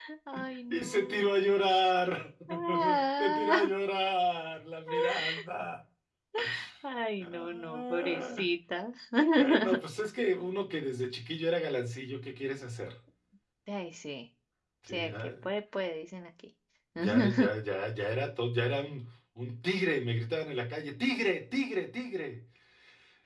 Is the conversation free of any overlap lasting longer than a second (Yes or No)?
No